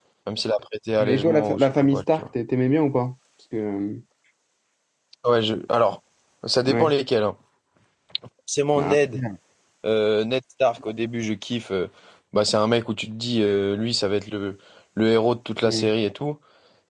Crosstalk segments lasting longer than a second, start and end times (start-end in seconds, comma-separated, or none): 1.0-2.2